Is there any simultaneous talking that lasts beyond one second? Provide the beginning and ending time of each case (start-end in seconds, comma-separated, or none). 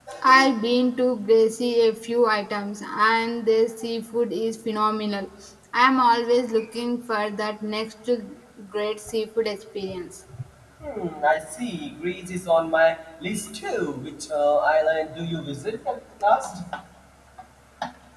none